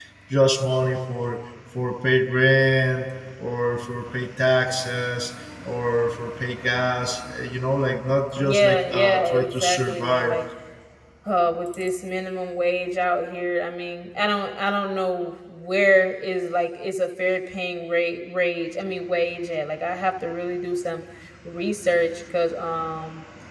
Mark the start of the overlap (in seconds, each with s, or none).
8.4 s